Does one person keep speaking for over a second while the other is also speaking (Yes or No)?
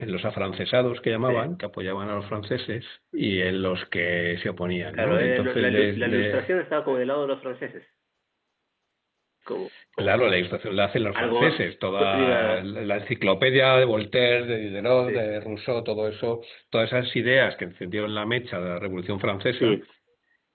Yes